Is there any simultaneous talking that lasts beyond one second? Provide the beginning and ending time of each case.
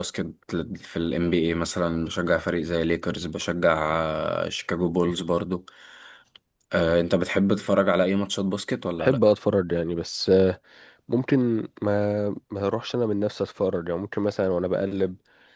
none

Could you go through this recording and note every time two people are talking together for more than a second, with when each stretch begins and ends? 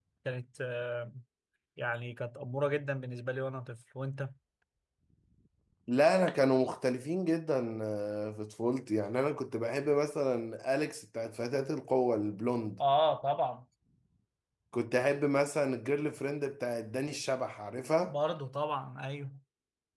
none

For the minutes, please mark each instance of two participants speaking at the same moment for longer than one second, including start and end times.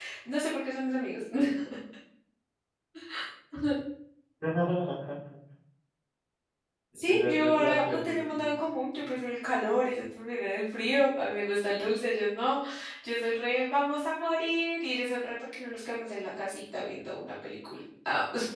7.1-8.6

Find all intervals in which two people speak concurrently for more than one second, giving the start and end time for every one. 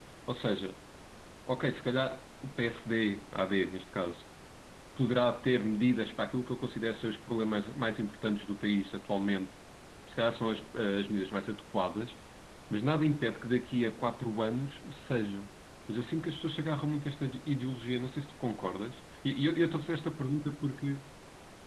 none

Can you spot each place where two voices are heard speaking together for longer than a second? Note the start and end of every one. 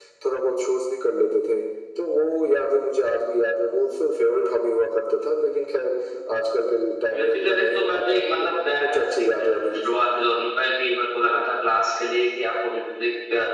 7.1-10.1

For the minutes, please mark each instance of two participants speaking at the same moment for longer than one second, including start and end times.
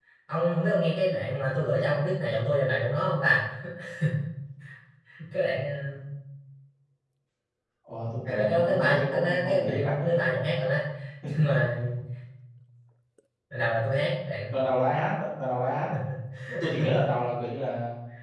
8.3-10.2

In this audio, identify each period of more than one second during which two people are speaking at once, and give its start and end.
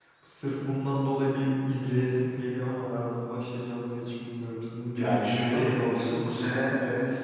5.0-6.6

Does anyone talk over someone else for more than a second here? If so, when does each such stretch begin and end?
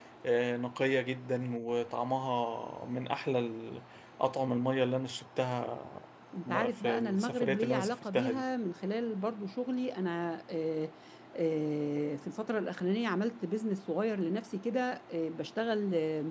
6.5-8.4

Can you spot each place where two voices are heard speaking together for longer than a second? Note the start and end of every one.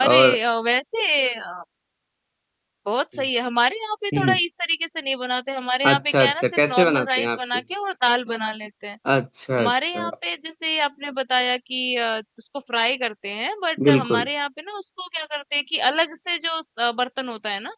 5.9-7.4

